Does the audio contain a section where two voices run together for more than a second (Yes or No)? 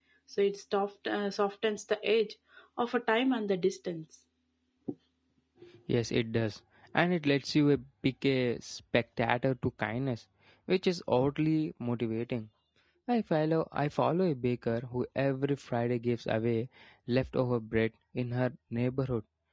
No